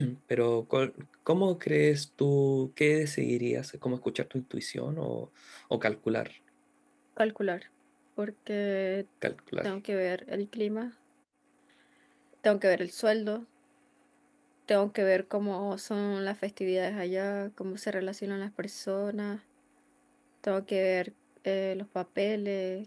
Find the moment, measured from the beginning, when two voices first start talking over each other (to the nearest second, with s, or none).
none